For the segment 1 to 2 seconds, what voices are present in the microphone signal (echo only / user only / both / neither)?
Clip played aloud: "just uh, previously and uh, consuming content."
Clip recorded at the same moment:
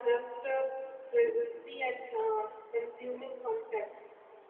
echo only